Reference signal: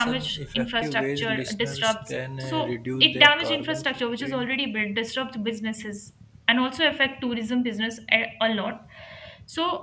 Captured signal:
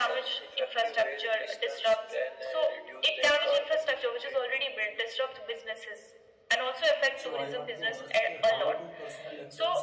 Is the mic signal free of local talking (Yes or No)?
No